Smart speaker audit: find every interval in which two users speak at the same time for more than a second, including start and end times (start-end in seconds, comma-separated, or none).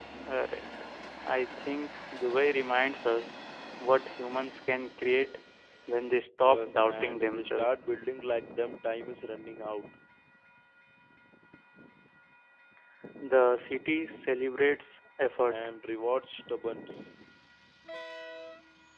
6.4-7.7